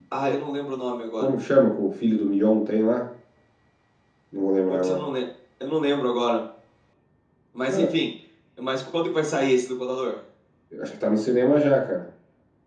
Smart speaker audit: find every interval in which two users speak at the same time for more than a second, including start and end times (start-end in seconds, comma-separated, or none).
none